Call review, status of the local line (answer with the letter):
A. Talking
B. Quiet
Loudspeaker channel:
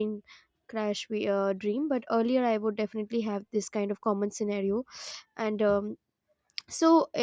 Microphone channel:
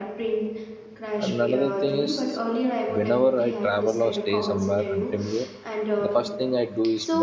A